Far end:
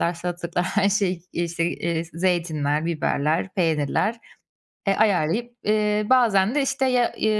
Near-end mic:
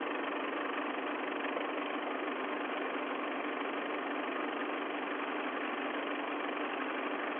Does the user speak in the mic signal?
No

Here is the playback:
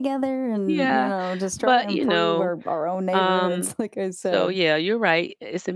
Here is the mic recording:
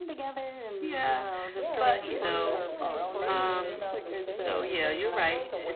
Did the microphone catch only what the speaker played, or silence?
No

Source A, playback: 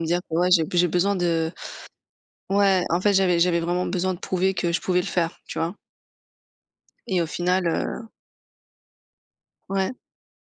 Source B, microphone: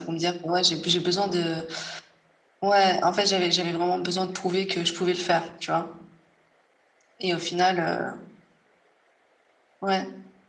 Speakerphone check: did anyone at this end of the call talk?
No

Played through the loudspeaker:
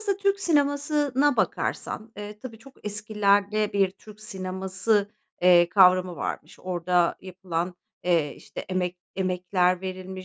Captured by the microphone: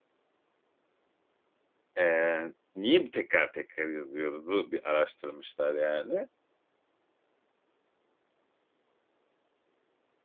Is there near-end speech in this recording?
Yes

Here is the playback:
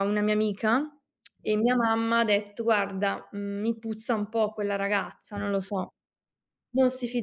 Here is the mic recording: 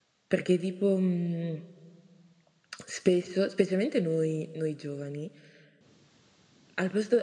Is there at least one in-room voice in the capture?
Yes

